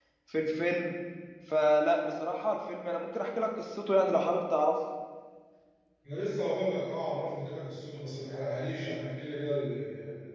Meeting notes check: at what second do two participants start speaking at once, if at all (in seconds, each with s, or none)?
none